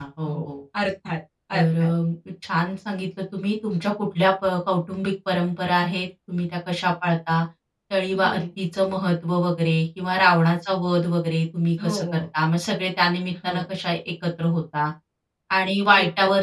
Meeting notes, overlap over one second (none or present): none